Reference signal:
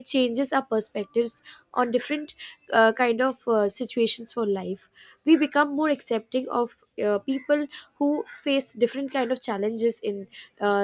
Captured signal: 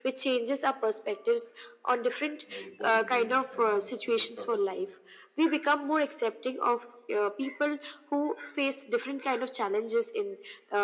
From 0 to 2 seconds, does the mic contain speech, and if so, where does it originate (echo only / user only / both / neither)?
echo only